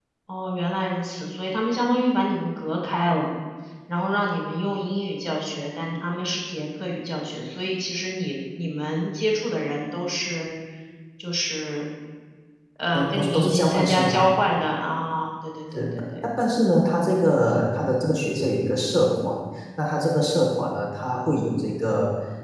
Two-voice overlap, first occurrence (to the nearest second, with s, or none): 13 s